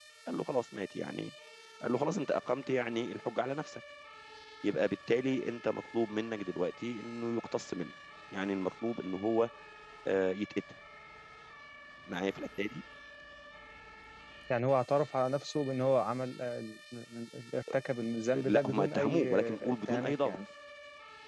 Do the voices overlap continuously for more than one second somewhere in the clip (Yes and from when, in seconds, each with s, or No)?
Yes, from 18.3 s